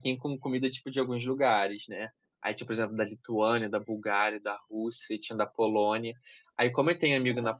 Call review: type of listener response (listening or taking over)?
listening